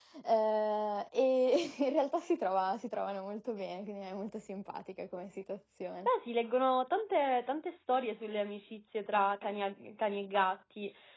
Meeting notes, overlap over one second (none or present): none